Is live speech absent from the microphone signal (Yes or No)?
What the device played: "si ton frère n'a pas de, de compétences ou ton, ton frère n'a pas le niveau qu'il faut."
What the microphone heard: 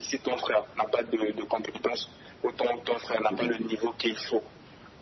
No